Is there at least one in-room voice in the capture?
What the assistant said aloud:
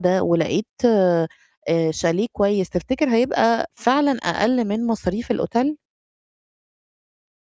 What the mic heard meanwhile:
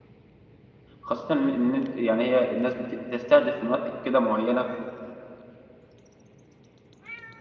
Yes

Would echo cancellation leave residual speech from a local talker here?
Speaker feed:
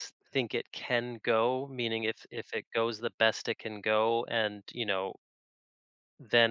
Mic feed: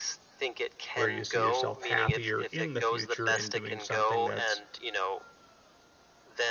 Yes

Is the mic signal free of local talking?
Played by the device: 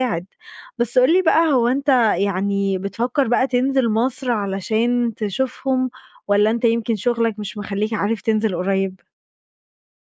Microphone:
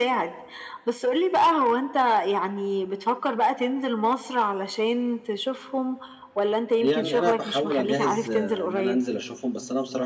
No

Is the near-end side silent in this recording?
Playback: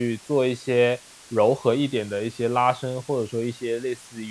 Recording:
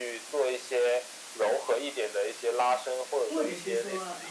No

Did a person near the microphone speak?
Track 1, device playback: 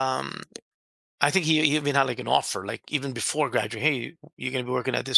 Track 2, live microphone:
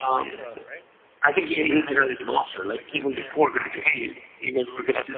Yes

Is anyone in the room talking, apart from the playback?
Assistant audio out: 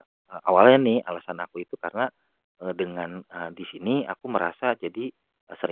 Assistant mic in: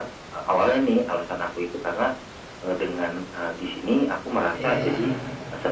Yes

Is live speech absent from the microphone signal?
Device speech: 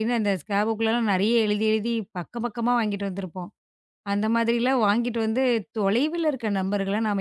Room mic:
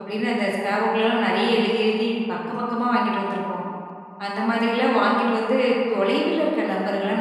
Yes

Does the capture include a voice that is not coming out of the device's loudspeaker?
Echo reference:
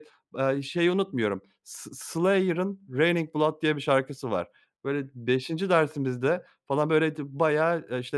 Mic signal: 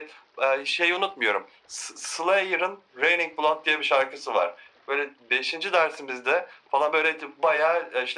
No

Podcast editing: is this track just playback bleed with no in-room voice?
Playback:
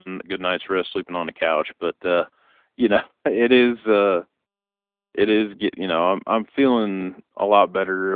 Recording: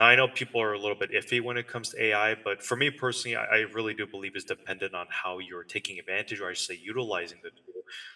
No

